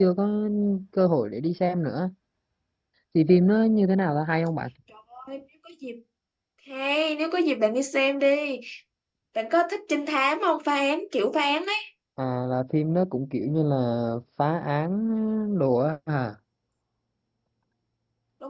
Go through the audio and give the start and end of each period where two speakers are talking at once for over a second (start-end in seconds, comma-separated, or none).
none